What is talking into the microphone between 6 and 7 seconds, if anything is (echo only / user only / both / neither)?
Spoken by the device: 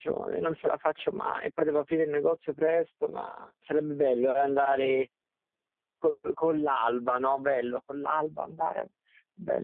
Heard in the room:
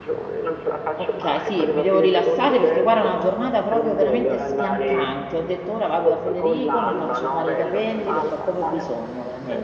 both